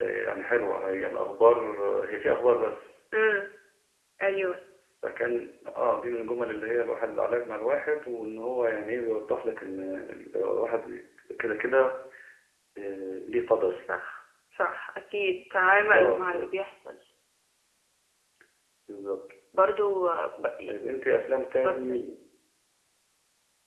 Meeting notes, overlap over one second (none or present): none